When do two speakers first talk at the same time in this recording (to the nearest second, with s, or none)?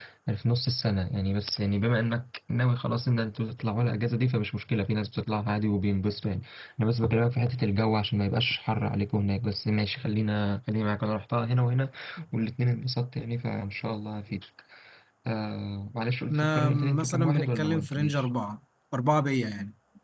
16 s